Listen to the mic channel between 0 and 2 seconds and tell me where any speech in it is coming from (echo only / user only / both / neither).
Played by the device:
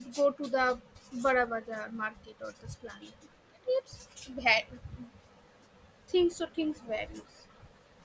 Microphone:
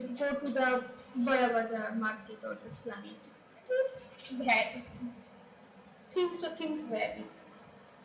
echo only